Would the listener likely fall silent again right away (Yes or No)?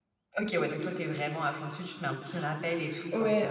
No